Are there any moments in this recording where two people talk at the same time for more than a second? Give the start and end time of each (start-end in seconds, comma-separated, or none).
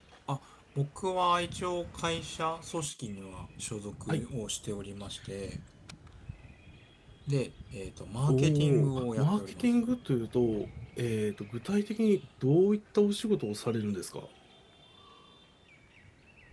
8.3-9.7